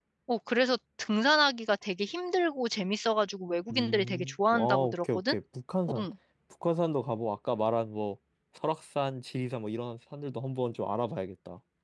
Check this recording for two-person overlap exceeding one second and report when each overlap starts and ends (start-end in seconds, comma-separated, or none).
3.7-5.3